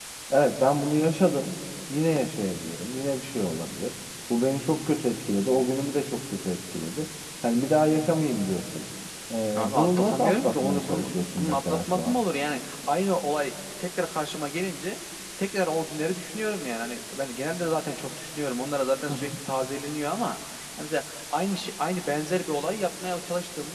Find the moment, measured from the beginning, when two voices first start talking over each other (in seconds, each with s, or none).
9.6 s